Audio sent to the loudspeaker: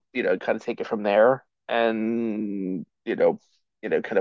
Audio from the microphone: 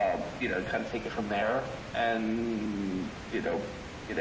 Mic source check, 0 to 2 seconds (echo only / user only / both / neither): echo only